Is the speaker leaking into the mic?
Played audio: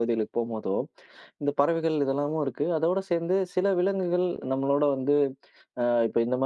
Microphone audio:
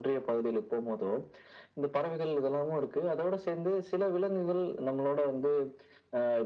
Yes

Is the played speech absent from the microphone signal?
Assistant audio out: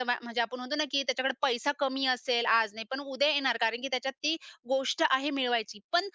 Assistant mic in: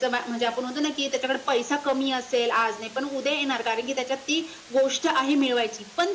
No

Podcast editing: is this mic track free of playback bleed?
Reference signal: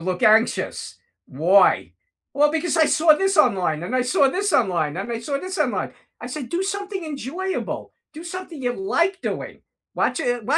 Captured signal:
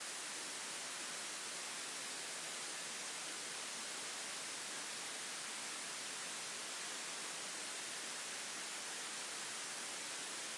Yes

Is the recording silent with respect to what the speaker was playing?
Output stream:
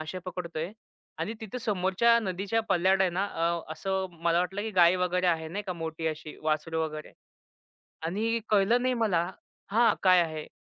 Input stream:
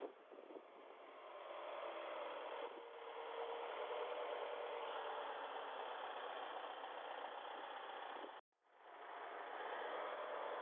Yes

